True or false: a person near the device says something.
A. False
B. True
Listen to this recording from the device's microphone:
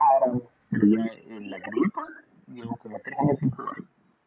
A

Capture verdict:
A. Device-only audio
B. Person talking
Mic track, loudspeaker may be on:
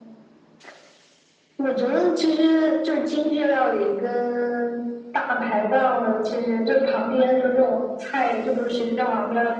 A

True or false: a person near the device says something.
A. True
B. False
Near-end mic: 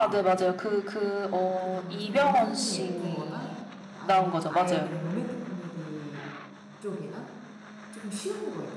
A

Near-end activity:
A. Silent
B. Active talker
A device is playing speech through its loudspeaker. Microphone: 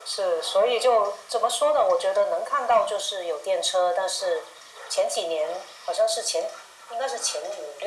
A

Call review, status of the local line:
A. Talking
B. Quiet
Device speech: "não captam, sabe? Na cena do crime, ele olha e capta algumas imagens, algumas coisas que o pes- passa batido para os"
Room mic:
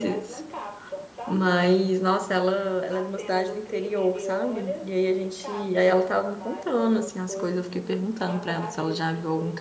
A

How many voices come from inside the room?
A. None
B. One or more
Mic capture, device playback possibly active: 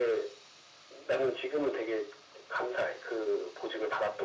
A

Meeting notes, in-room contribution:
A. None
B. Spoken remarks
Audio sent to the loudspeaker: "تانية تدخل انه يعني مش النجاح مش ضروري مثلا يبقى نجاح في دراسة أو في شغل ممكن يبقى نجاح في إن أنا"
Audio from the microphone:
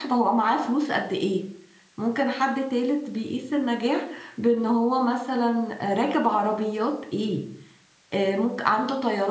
B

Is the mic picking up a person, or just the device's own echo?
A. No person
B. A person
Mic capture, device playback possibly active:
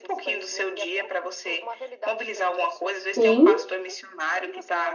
B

